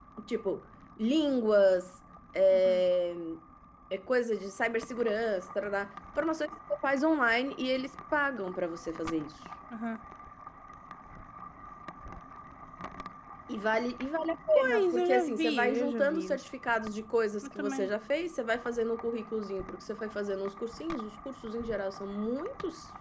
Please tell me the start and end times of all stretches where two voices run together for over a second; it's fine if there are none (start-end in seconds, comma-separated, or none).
14.6-16.4